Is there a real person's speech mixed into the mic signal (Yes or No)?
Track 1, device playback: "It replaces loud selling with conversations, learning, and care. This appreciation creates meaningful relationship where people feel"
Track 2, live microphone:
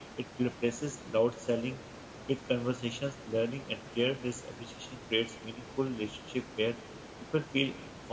No